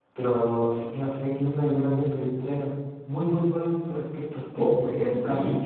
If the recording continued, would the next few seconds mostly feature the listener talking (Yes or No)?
Yes